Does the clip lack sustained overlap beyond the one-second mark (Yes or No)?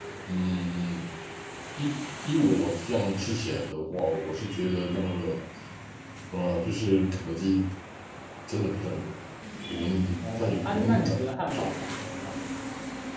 No